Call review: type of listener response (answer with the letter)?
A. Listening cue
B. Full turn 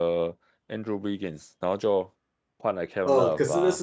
B